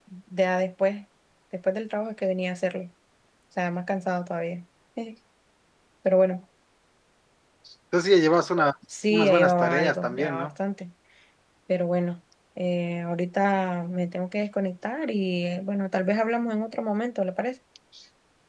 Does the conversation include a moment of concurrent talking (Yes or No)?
Yes